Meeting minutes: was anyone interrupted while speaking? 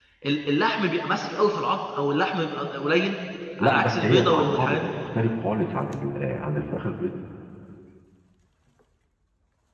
Yes, from 3.6 s

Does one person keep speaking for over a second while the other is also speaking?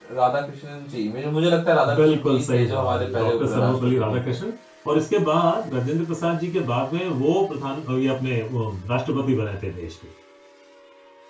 Yes, from 1.8 s

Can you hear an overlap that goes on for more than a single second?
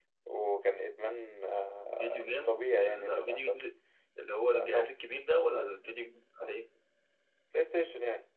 Yes, from 2.0 s

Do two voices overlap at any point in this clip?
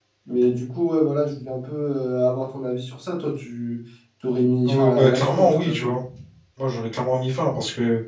Yes, from 4.7 s

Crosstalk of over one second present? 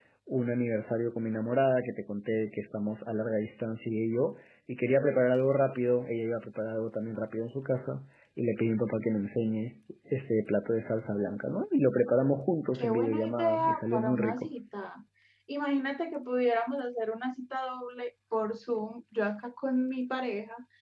Yes, from 12.8 s

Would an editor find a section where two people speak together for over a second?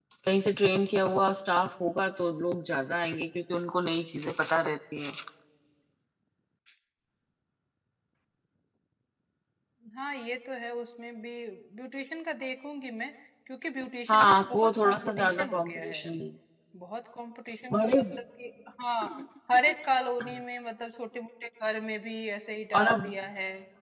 Yes, from 14.1 s

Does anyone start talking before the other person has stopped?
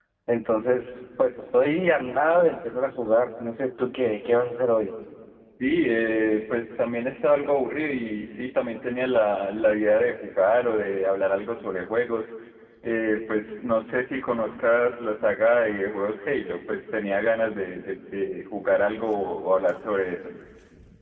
No

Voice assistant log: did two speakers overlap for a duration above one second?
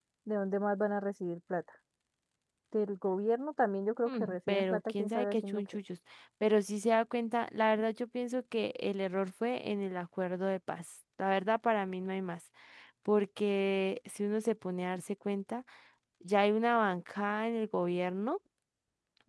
Yes, from 4.0 s

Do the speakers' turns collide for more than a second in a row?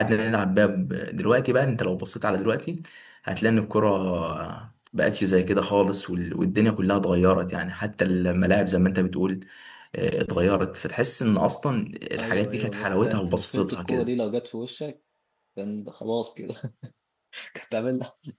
Yes, from 12.2 s

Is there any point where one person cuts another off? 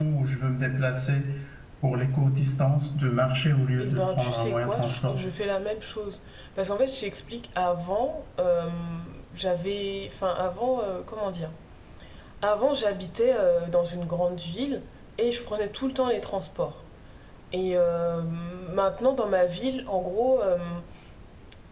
Yes, from 3.8 s

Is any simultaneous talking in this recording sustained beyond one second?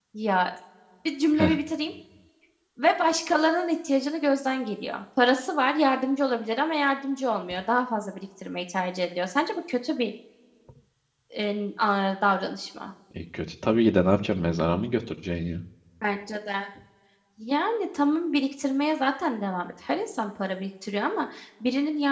No

